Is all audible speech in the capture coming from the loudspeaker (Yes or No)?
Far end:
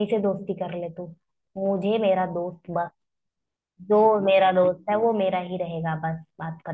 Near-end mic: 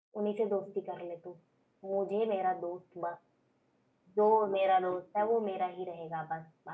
Yes